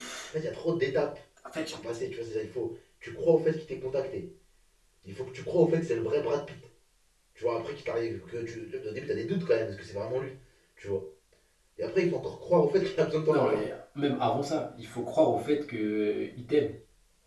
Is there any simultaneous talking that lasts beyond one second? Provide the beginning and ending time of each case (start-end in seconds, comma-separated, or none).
none